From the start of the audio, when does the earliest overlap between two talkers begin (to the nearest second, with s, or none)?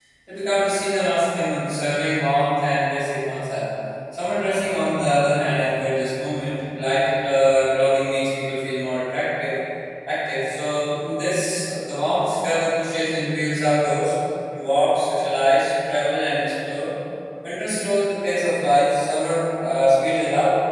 none